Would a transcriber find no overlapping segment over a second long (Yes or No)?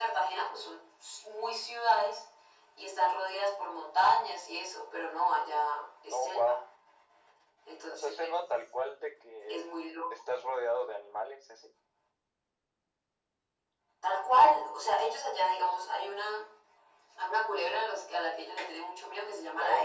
Yes